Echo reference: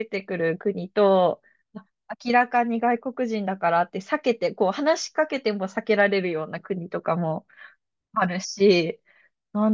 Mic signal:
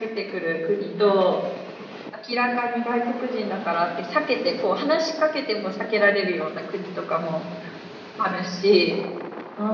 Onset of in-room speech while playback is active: none

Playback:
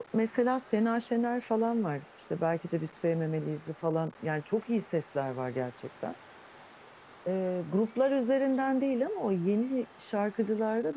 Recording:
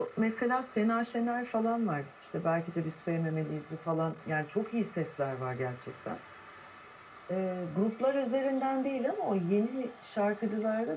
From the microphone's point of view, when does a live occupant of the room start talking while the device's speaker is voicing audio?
none

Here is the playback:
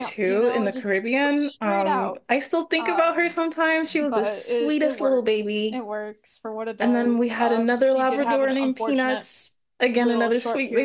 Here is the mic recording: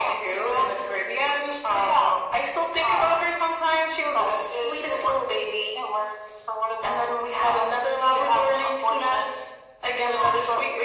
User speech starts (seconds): none

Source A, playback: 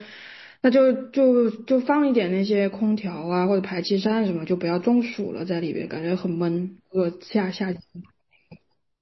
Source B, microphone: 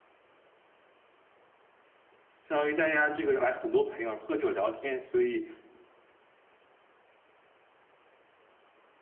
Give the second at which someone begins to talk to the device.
2.4 s

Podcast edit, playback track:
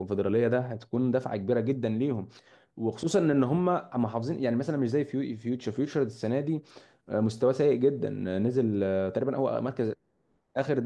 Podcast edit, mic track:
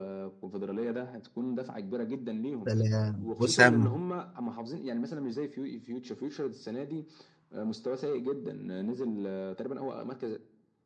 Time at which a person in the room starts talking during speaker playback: 2.7 s

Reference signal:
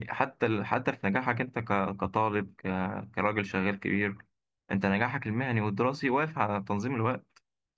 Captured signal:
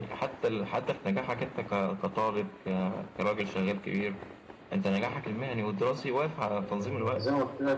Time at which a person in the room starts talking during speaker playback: 6.6 s

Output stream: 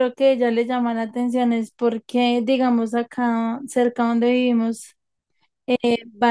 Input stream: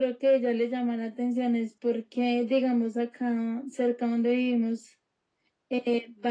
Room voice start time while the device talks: none

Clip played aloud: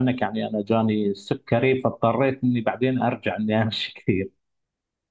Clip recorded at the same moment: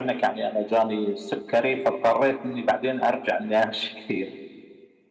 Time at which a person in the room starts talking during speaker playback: none

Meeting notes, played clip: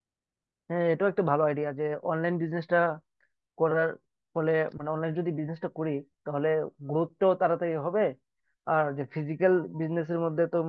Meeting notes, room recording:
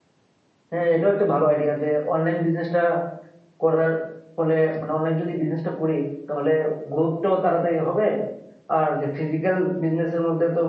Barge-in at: none

